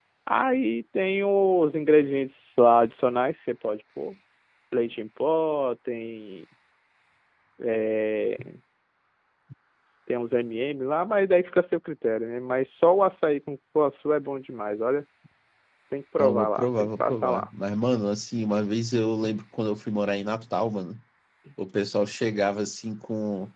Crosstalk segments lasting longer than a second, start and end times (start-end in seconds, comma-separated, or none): 16.2-17.5